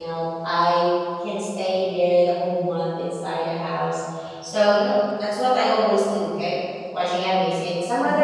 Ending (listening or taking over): taking over